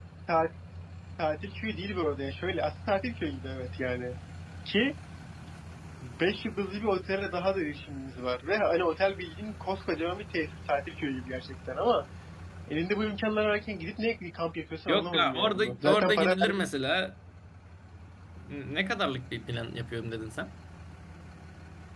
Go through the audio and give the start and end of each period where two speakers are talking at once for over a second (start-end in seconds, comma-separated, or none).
14.9-16.6